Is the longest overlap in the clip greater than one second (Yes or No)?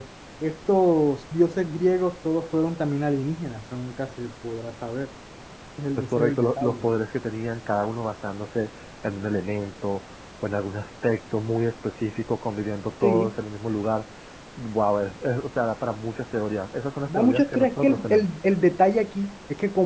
Yes